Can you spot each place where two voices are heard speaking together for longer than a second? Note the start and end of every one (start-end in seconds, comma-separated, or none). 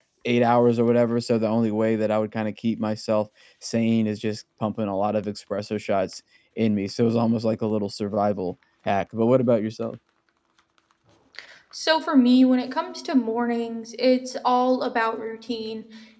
none